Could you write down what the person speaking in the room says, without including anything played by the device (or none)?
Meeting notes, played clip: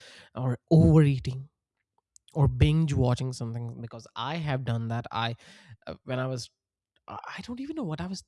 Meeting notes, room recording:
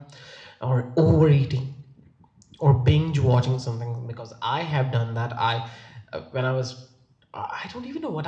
none